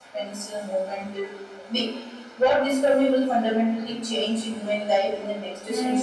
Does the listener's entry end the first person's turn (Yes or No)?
Yes